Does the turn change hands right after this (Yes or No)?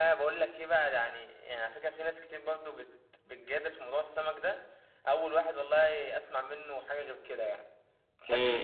Yes